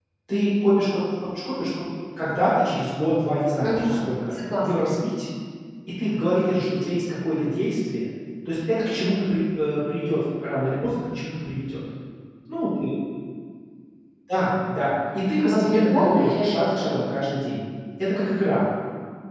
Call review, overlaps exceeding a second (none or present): present